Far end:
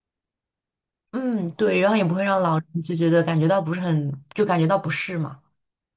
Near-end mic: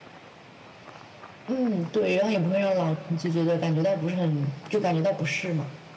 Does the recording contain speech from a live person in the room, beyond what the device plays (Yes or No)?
No